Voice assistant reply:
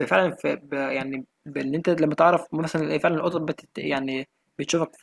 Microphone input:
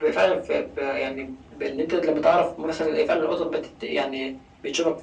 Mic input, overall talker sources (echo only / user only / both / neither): echo only